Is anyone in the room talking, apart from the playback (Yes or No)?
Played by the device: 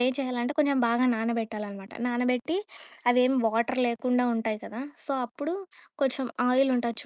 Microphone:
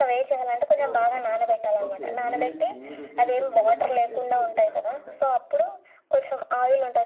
Yes